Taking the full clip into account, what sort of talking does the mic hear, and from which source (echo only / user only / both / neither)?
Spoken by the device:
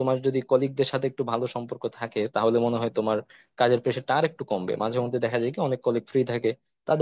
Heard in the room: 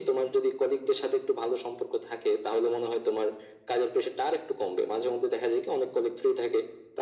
echo only